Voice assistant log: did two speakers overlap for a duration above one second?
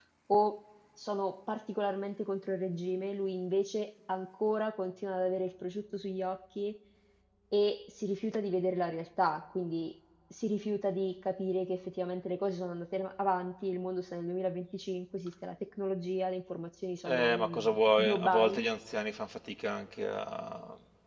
Yes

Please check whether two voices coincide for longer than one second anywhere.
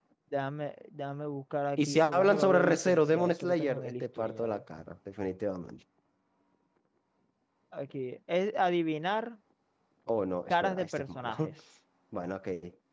Yes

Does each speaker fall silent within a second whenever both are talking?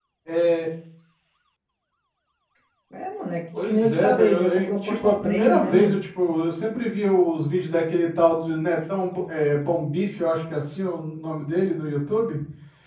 No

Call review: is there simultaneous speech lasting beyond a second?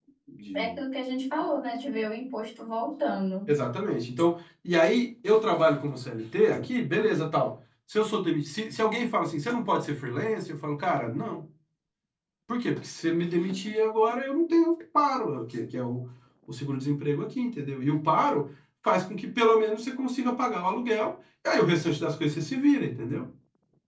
No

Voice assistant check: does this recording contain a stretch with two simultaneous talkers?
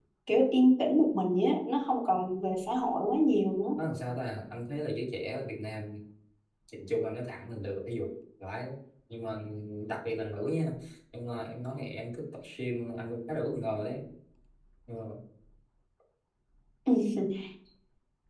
No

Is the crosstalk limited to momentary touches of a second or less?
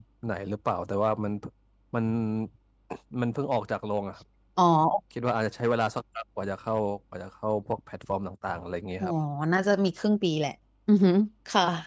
Yes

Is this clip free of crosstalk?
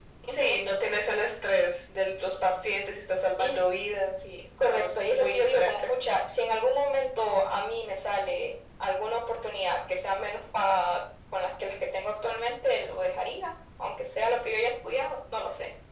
No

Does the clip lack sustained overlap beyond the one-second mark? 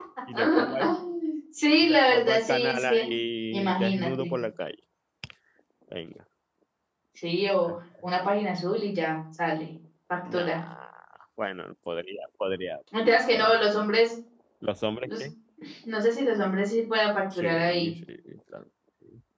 No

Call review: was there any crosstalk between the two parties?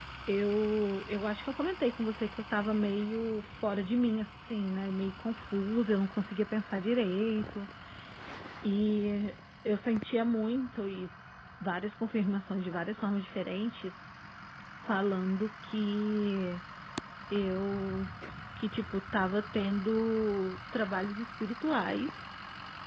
No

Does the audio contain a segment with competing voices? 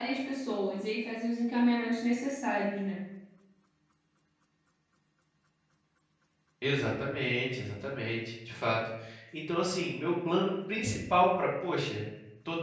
No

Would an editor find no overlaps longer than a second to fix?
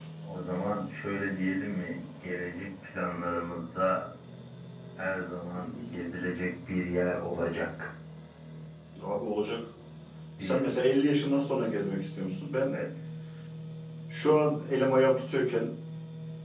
Yes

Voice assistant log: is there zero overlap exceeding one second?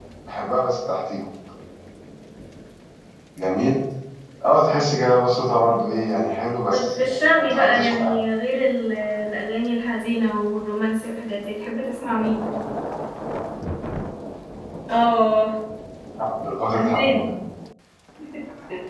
No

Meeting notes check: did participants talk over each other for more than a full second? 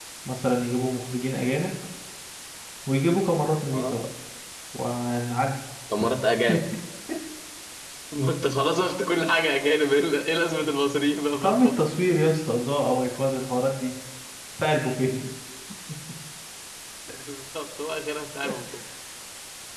No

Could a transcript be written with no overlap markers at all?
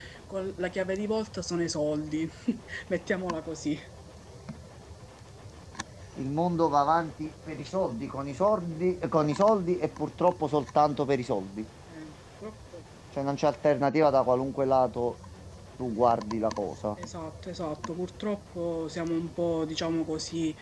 Yes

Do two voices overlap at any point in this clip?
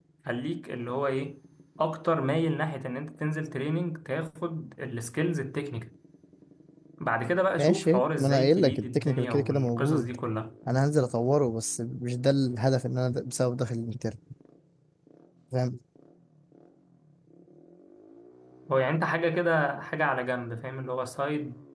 Yes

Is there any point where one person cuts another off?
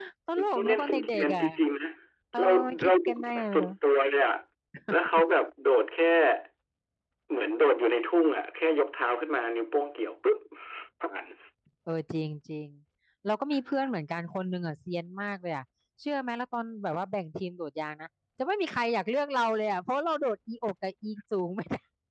Yes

